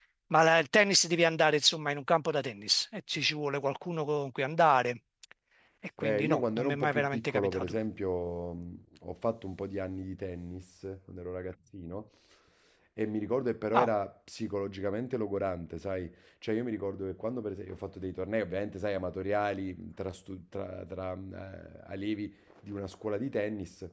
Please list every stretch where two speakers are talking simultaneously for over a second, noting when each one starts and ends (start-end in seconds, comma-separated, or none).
6.0-7.8